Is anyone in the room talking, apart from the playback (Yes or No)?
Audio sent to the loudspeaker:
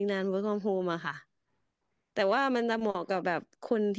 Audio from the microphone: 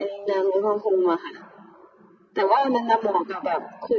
No